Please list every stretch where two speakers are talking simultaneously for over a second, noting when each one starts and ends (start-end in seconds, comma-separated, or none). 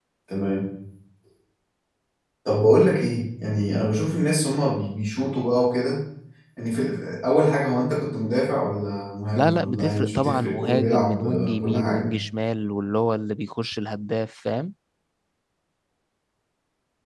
9.3-12.1